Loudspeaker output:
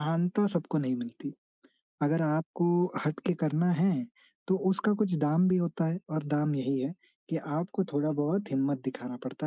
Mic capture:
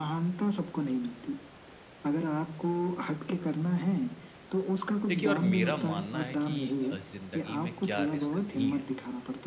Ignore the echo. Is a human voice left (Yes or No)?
Yes